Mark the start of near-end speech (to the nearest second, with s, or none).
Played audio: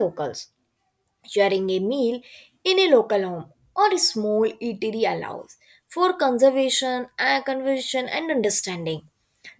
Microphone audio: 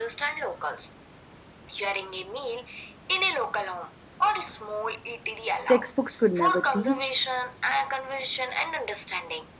6 s